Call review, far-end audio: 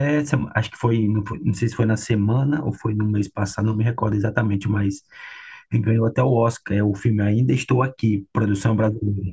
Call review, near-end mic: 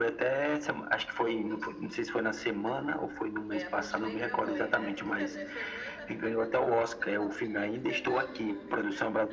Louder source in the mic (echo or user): echo